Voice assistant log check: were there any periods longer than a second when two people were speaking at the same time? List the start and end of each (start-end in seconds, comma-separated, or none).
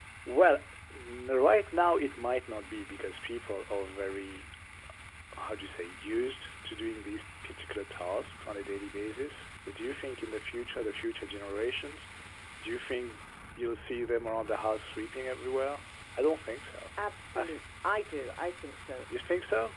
none